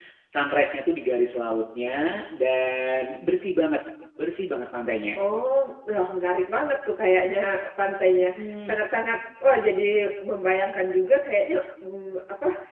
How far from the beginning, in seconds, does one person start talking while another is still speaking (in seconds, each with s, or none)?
none